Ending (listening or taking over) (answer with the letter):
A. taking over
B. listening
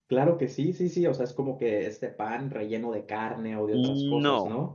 A